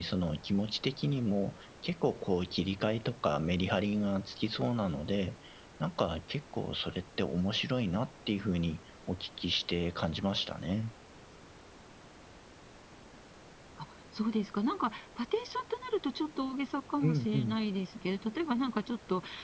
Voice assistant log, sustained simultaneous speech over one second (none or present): none